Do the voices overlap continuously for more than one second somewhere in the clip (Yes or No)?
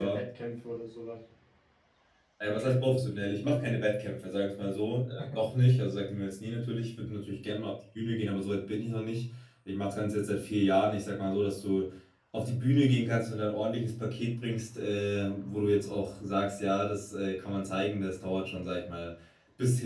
No